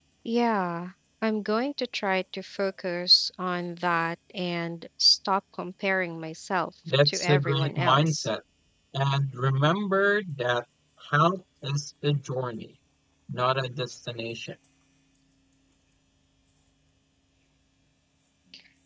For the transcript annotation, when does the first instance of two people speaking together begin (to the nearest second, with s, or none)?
7 s